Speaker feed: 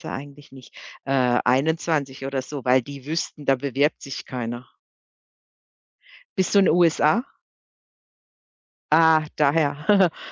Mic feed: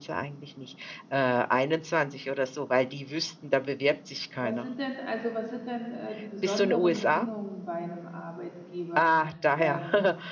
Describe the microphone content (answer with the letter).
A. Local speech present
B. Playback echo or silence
A